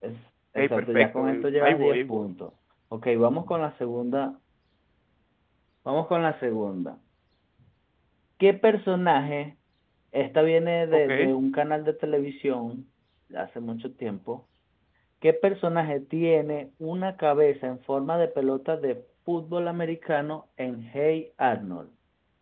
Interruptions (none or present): present